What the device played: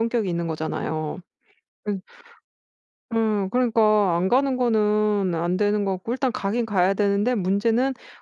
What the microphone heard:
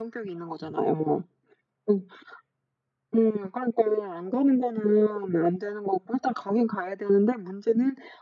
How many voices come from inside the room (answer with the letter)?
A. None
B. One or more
A